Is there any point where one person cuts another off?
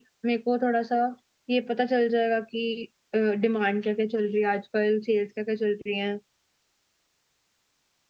No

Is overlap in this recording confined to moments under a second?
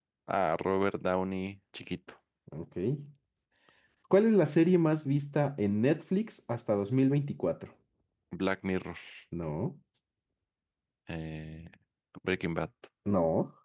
Yes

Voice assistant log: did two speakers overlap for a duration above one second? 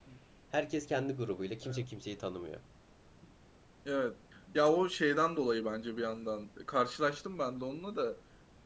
No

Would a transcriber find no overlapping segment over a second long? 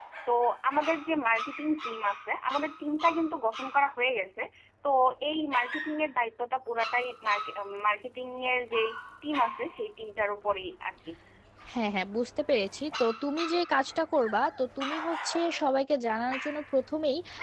Yes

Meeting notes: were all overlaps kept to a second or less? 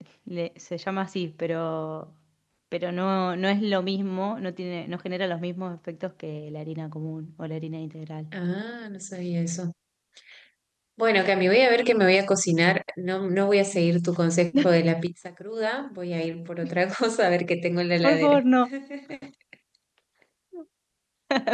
Yes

